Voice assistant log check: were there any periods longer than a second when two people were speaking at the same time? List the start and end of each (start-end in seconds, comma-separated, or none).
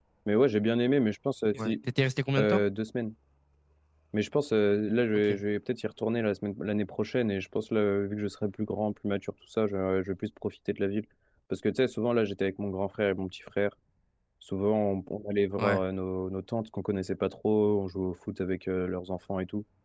none